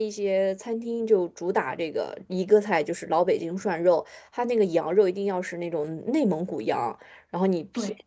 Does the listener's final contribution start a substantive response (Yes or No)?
No